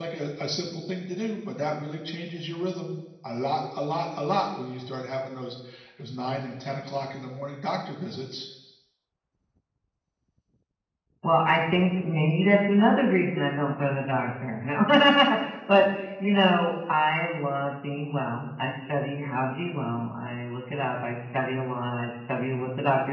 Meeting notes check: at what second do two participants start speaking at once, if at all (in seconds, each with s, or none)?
none